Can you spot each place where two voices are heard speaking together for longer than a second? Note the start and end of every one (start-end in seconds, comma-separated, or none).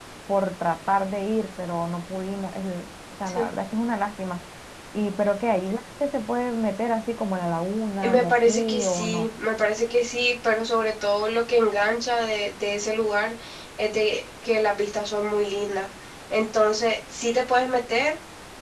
8.0-9.3